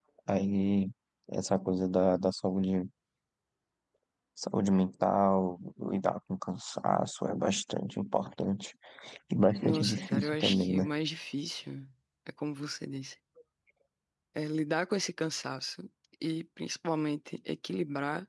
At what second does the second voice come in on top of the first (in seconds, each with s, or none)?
9.6 s